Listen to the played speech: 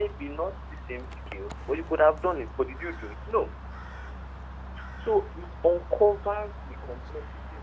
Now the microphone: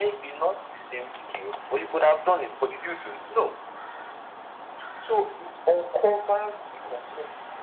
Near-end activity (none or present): none